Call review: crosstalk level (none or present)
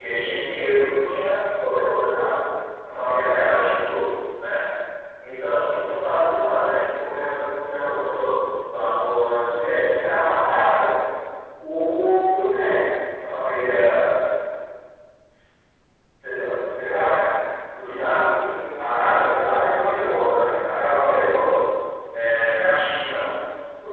present